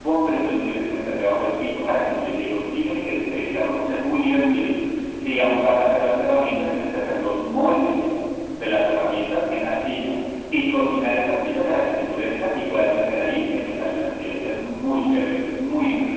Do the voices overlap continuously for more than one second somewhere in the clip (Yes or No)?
No